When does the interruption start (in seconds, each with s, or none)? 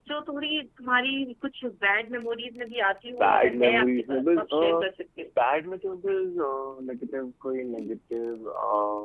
3.2 s